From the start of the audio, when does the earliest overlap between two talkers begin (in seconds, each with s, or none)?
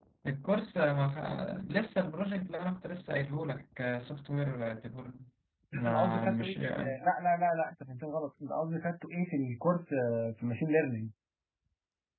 5.8 s